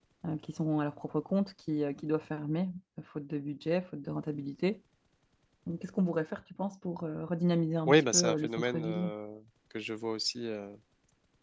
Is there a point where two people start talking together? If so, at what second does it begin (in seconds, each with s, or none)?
7.9 s